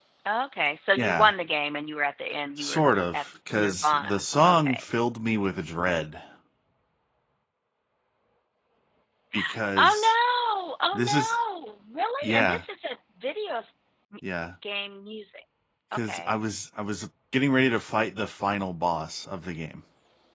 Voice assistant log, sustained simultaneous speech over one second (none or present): present